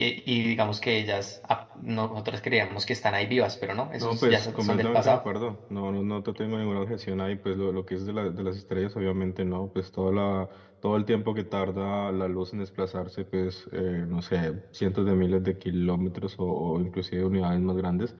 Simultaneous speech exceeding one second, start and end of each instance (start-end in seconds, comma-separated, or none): 4.0-5.2